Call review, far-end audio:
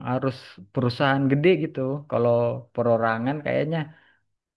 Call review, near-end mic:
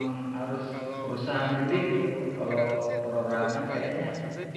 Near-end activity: present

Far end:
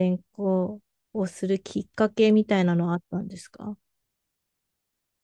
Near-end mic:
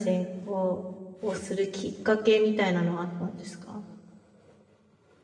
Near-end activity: none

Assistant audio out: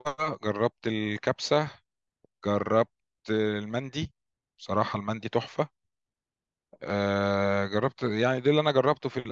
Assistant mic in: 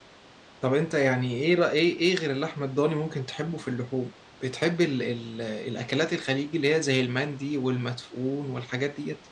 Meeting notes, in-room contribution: present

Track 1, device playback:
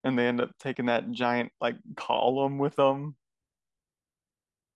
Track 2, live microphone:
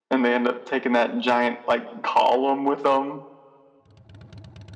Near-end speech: none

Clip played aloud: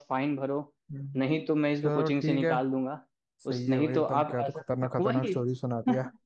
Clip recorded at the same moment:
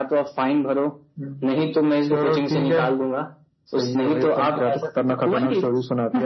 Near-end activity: none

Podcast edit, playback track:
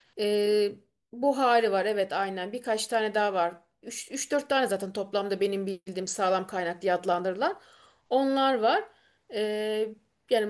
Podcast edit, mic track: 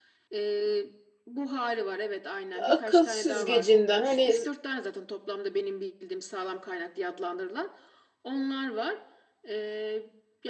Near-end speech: present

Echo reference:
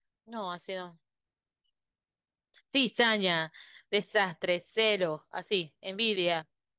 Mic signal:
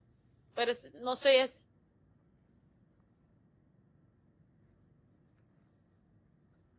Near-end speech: present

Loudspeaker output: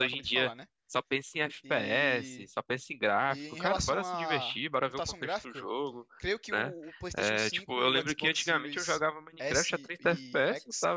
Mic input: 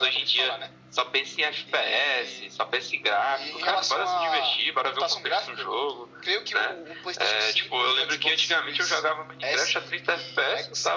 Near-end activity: none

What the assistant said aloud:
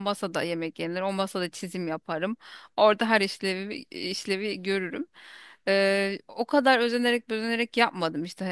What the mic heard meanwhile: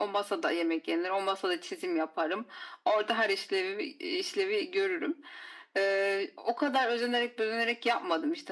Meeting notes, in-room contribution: none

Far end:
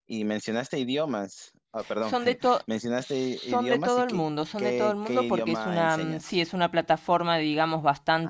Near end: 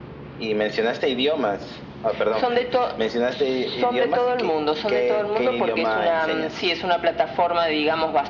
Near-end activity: none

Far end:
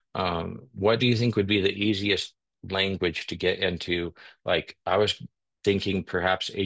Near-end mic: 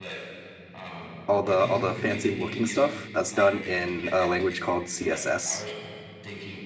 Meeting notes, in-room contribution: present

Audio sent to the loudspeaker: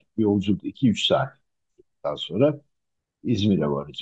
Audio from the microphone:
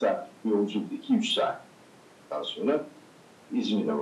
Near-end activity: none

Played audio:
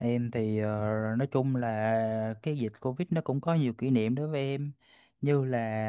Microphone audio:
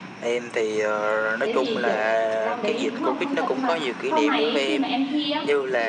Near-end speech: present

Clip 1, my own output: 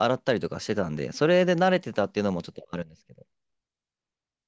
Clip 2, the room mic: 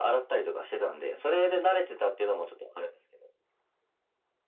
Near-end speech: none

